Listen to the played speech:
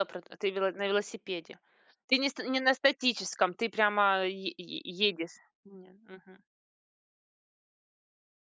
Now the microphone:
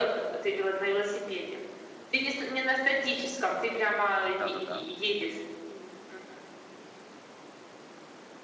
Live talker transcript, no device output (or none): Да-да-да.